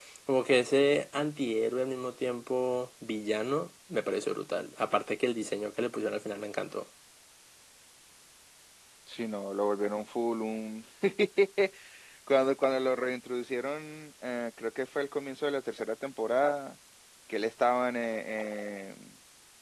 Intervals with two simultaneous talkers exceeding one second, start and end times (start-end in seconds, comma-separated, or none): none